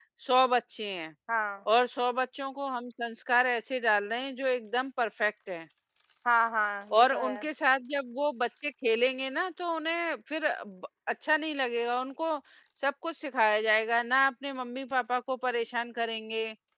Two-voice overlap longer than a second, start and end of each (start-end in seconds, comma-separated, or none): none